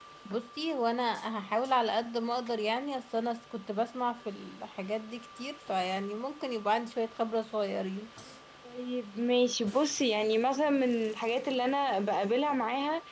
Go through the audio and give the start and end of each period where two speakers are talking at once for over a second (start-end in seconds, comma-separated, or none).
none